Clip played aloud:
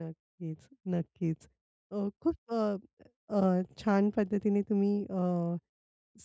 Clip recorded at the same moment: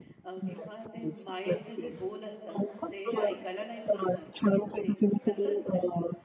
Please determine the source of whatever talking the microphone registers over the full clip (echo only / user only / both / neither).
both